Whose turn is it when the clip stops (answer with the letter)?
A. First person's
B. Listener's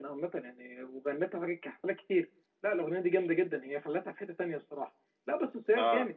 A